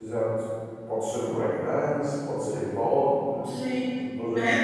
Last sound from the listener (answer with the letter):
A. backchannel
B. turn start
B